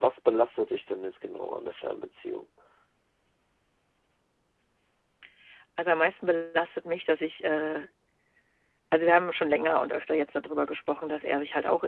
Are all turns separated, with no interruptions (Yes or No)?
Yes